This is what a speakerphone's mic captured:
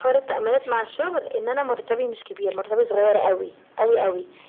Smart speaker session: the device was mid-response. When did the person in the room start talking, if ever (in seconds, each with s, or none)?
none